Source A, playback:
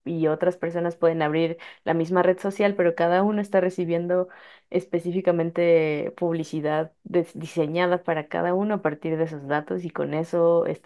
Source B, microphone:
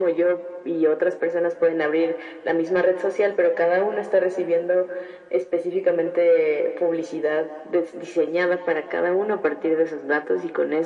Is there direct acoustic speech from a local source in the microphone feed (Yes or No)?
No